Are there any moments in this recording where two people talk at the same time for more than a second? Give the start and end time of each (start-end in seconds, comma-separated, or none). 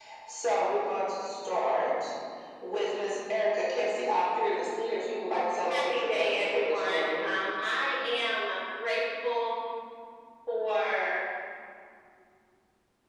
5.7-7.3